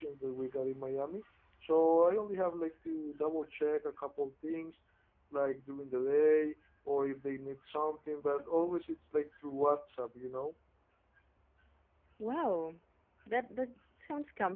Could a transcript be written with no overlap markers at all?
Yes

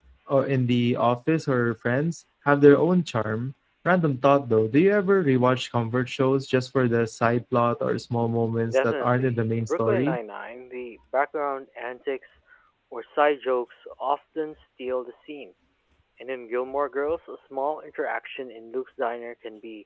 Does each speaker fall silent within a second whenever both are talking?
No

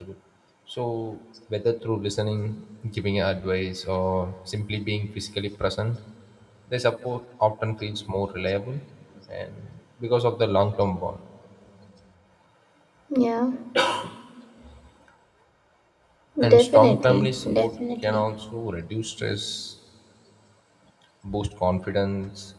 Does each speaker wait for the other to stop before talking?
No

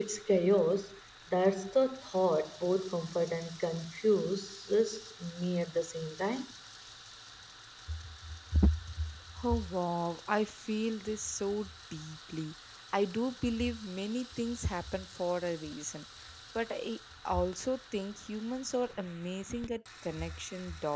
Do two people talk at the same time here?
No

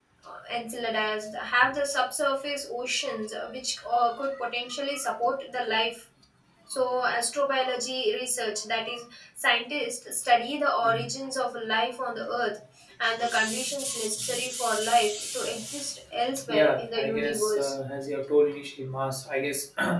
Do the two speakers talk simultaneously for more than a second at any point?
Yes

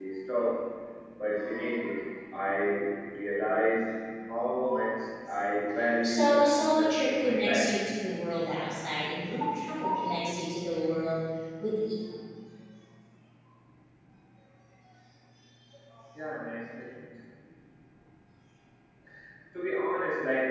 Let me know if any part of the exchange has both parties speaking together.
Yes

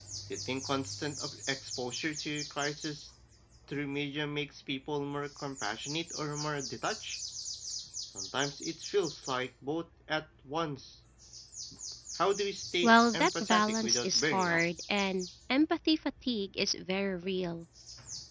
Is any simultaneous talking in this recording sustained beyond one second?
Yes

